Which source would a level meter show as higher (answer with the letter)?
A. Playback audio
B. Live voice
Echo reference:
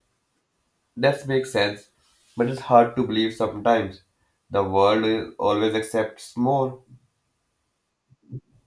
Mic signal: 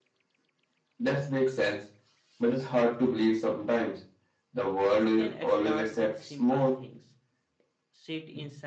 A